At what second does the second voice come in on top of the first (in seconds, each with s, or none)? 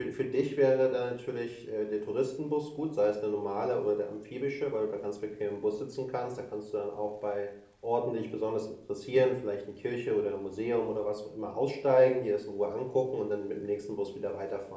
none